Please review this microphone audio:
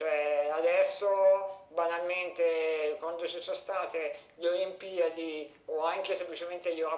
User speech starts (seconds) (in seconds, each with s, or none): none